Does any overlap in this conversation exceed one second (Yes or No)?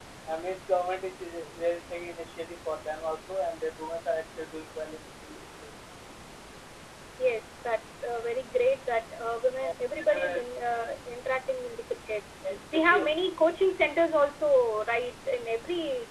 No